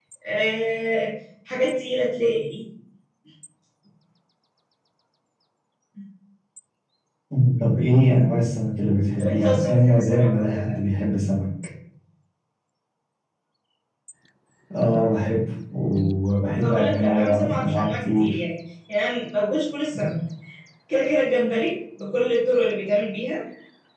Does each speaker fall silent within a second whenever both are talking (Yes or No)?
No